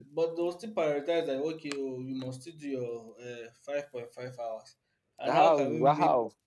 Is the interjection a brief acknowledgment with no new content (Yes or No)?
No